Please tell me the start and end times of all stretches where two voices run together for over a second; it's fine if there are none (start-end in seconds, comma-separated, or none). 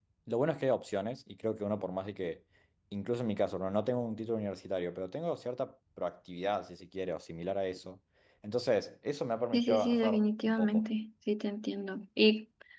9.5-10.8